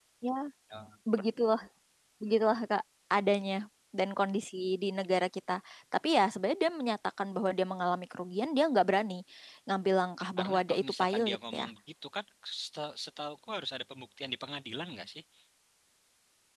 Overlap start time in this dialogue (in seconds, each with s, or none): 10.4 s